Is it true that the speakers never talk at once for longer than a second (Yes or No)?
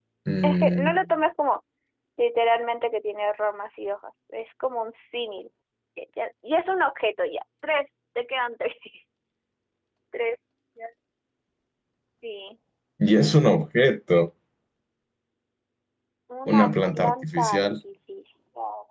No